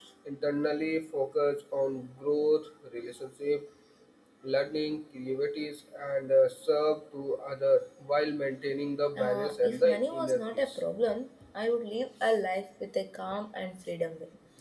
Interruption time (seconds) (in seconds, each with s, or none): 9.2 s